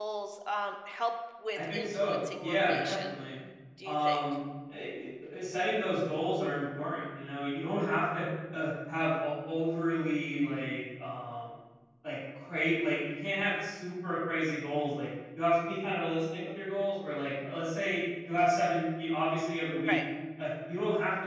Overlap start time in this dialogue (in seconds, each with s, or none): 1.6 s